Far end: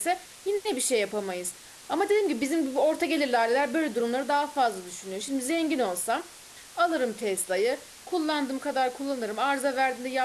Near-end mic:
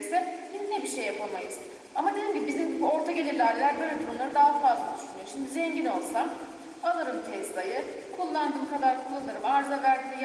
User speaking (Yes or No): No